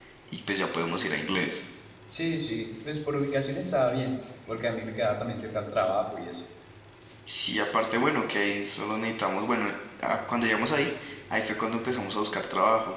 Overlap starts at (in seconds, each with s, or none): none